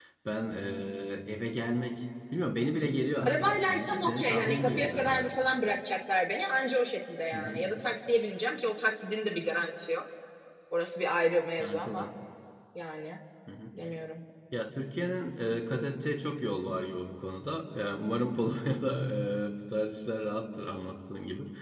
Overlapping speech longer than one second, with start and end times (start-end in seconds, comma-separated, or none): 3.2-5.3